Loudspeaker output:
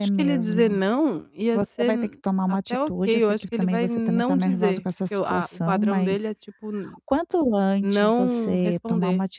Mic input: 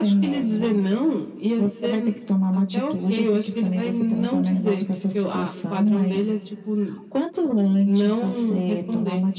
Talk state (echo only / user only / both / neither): echo only